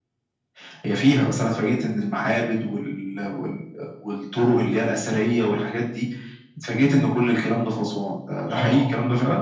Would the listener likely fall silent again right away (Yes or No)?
No